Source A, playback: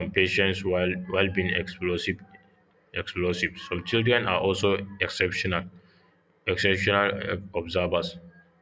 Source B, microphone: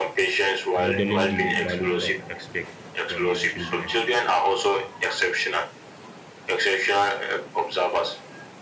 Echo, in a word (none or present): present